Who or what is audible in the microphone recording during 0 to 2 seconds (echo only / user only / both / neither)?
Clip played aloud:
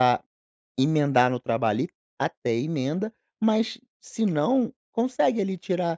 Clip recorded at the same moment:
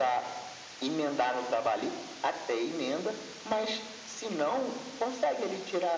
echo only